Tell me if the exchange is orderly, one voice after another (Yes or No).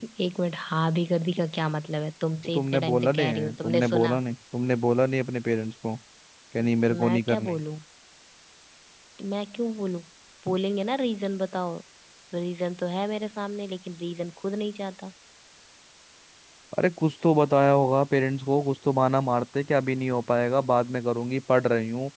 No